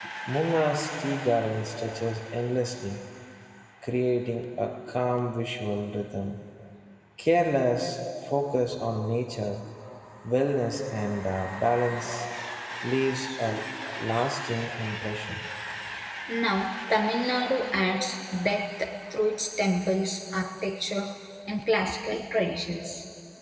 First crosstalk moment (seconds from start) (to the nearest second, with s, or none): none